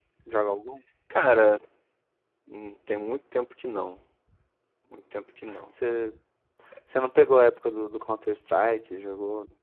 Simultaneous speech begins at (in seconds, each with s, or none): none